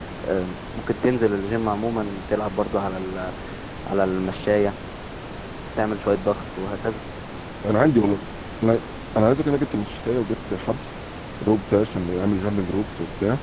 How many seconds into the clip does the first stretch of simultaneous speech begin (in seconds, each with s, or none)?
none